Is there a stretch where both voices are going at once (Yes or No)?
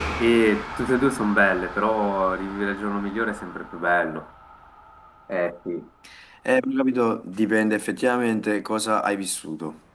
No